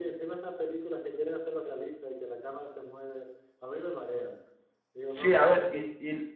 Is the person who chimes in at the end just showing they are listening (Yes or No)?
No